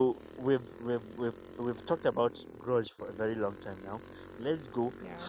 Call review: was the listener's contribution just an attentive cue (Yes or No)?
Yes